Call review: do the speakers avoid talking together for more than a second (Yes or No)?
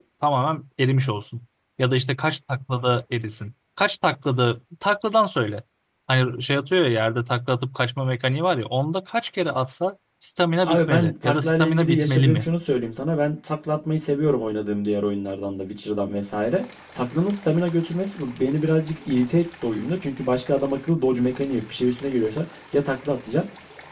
No